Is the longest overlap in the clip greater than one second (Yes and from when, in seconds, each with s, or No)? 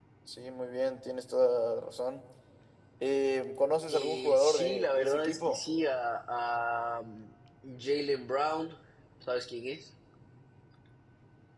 Yes, from 3.9 s